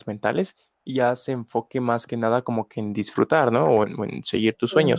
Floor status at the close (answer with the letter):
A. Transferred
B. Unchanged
A